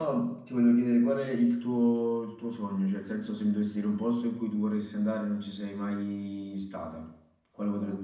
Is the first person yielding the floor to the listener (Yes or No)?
Yes